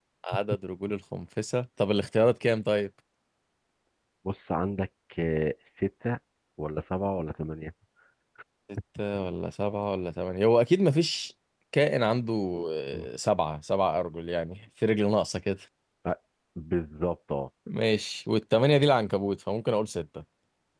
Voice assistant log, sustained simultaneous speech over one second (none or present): none